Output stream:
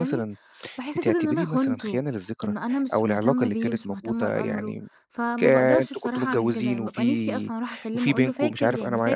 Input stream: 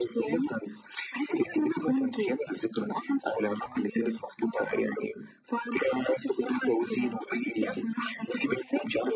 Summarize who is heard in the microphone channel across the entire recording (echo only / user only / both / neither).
echo only